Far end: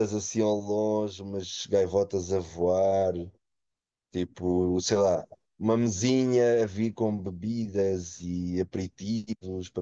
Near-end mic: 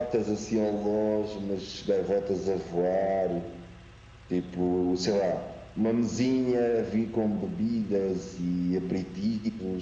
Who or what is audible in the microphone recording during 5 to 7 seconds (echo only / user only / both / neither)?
echo only